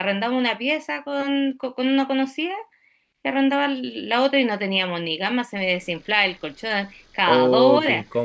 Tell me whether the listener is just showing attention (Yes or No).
No